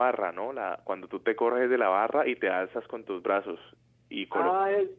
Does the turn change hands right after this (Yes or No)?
Yes